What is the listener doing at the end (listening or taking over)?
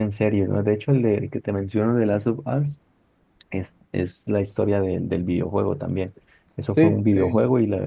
listening